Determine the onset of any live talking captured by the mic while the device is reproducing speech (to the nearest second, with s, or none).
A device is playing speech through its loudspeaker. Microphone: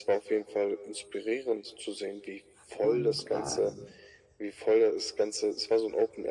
3 s